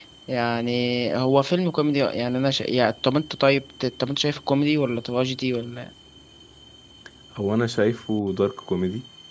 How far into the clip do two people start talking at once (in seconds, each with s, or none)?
none